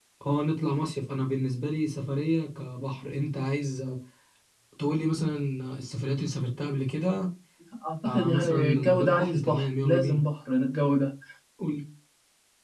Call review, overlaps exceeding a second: present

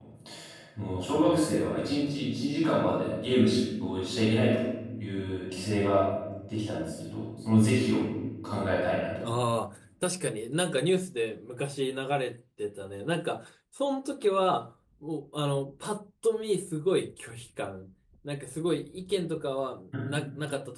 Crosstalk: none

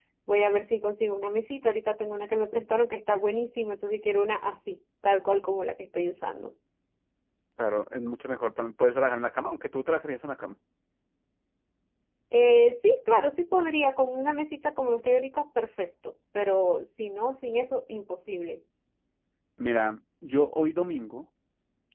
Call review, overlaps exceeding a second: none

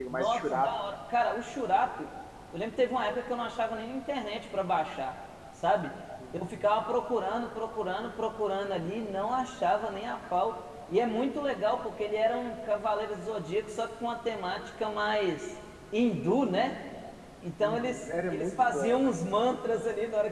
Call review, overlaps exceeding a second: present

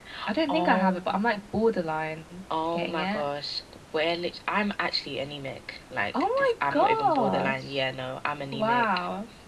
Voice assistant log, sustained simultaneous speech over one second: present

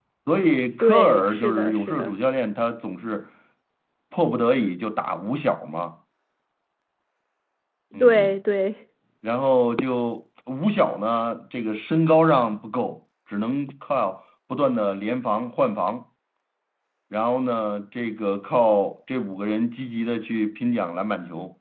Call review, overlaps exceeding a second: present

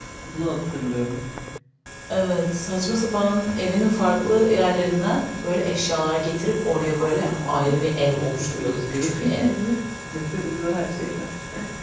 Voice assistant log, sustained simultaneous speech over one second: present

